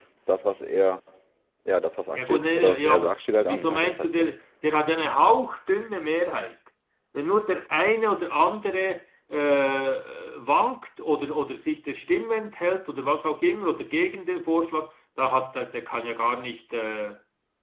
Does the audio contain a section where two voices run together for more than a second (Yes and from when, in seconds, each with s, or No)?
Yes, from 2.1 s